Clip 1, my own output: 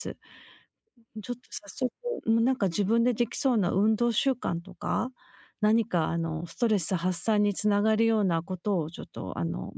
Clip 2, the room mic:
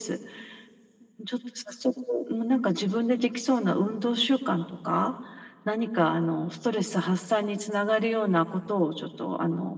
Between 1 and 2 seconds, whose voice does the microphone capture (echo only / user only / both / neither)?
echo only